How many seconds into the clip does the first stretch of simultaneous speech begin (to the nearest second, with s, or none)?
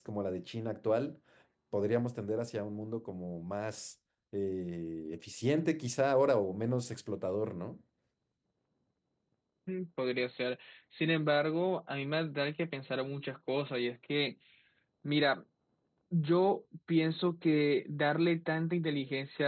none